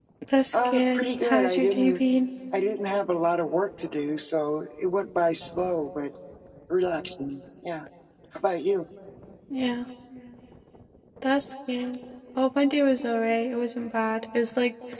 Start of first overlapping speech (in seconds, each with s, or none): 0.5 s